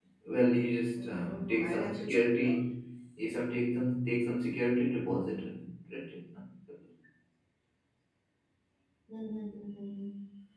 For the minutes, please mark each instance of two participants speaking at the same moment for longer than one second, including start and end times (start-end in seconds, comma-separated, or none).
1.0-2.6